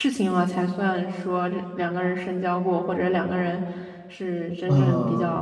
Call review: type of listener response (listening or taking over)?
taking over